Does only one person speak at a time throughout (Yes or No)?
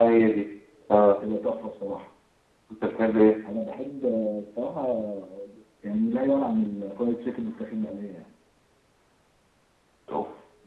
Yes